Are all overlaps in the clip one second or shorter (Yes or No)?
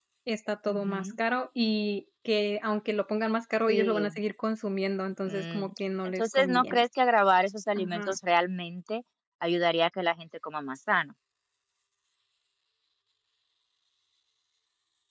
No